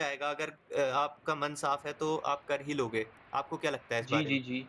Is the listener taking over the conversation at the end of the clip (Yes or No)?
Yes